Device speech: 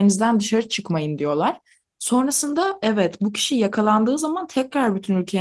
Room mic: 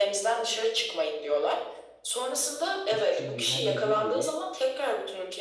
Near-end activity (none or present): present